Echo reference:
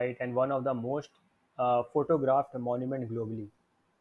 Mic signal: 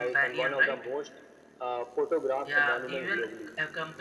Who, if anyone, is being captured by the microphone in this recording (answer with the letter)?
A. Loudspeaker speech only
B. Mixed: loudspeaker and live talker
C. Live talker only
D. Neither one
B